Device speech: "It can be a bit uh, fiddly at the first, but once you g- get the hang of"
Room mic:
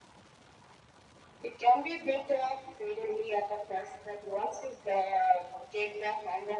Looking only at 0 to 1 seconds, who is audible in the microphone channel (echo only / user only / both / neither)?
neither